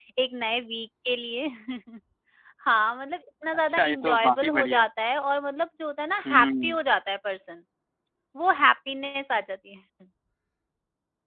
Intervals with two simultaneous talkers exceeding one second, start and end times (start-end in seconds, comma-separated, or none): 3.6-4.8